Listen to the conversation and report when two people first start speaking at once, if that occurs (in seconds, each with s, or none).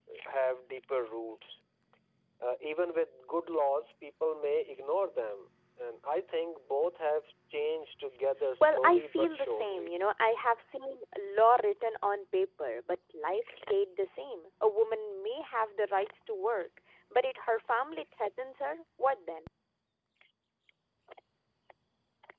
8.6 s